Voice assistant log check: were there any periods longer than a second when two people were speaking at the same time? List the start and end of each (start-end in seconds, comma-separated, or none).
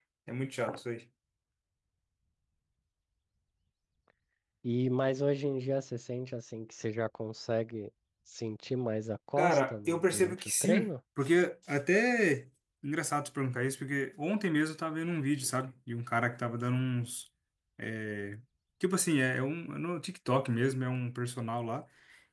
9.4-10.9